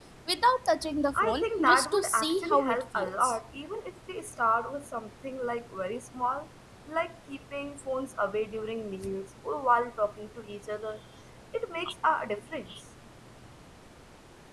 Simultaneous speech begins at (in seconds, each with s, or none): 1.1 s